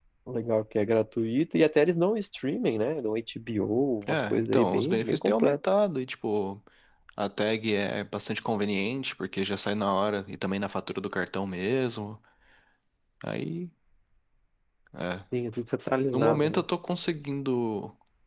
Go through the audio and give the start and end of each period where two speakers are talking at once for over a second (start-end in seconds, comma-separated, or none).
4.1-5.6